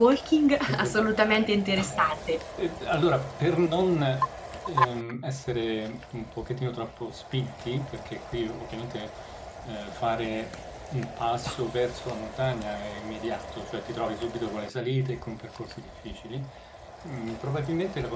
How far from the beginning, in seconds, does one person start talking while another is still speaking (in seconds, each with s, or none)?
0.7 s